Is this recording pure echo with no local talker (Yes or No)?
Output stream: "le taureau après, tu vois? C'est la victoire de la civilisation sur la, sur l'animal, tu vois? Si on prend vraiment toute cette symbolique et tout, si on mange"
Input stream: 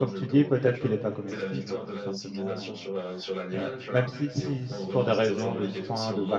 No